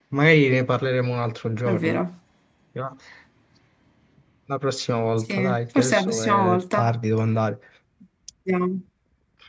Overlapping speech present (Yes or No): Yes